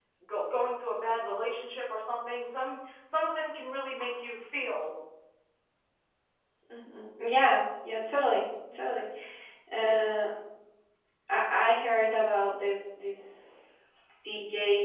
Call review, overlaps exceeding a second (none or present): none